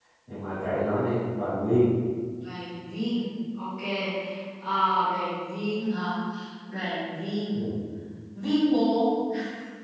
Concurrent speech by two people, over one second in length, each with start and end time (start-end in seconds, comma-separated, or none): none